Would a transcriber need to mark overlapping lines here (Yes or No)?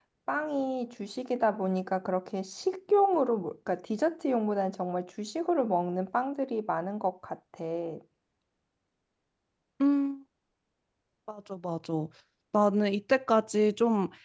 No